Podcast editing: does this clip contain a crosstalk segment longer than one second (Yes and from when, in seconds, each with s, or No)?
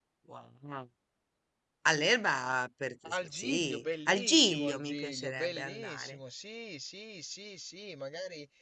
Yes, from 3.3 s